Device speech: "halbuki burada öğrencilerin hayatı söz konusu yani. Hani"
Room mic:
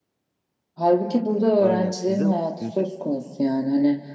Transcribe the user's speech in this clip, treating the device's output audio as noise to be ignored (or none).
Aynen. Sizde sizde